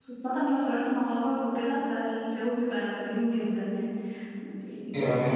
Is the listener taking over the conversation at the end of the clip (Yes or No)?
Yes